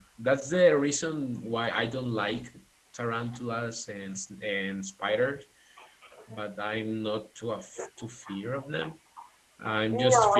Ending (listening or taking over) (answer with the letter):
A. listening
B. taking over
A